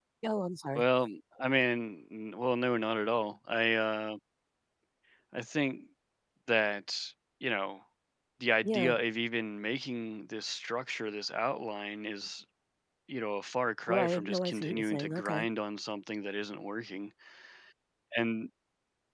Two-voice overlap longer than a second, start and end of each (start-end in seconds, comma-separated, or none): 13.9-15.5